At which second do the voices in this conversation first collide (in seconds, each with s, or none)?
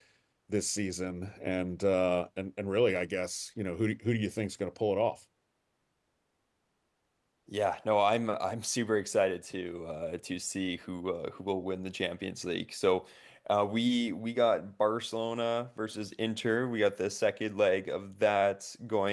none